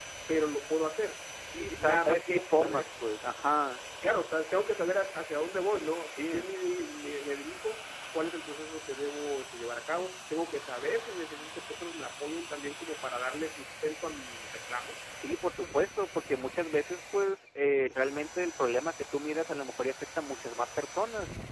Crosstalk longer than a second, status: present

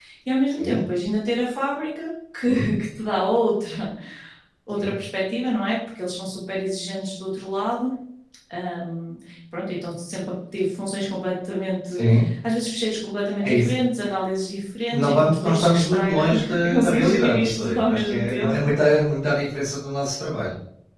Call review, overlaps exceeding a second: present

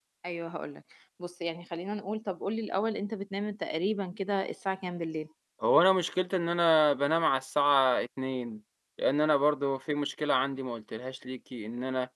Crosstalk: none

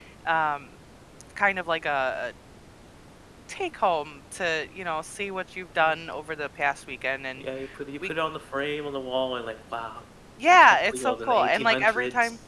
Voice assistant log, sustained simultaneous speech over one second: present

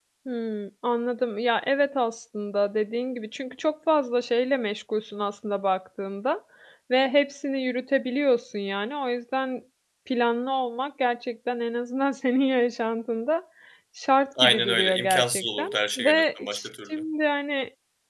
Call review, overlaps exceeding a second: present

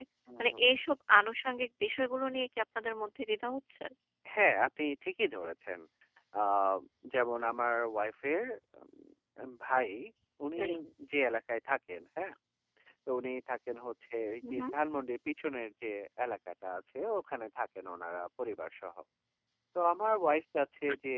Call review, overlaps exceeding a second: none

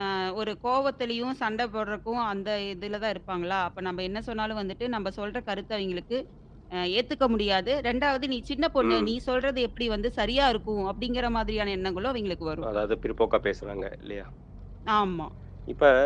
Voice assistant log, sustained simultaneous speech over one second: none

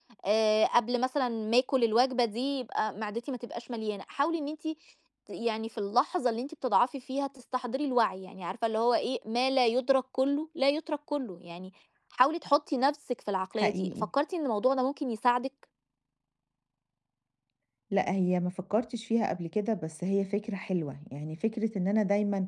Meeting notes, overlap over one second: none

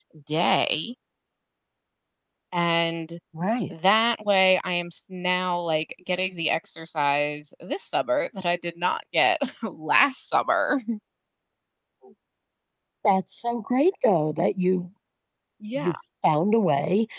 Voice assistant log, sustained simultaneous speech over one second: none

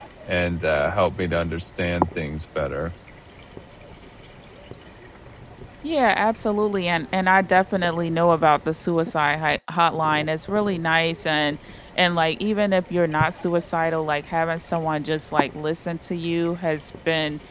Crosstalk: none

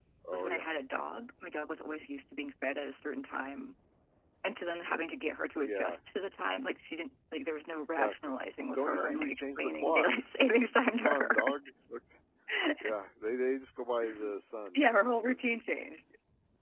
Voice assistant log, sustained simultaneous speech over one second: present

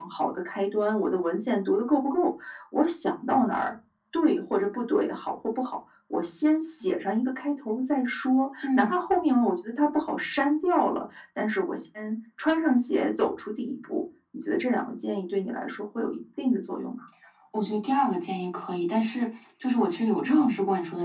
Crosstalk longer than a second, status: none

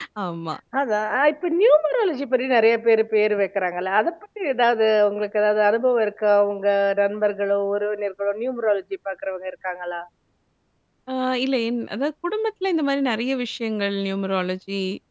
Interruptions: none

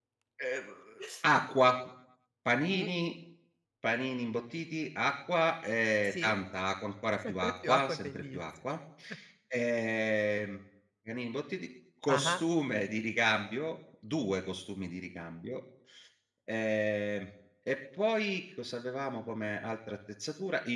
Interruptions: present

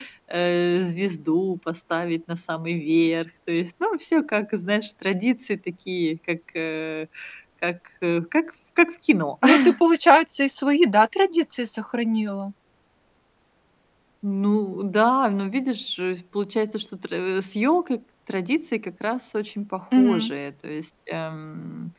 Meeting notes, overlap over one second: none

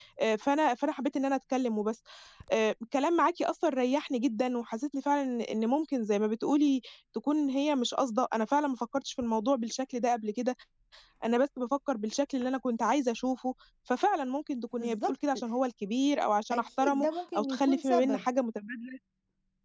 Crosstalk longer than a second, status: present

